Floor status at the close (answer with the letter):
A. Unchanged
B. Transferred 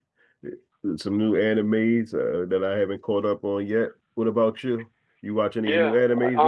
B